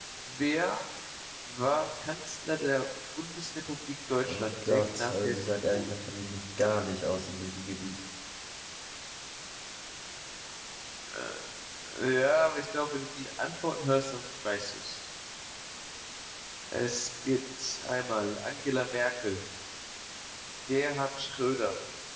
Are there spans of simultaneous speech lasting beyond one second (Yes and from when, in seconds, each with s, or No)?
Yes, from 4.2 s